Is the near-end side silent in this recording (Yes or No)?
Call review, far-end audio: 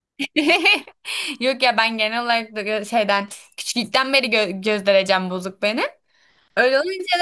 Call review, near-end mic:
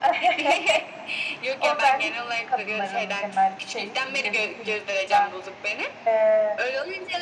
No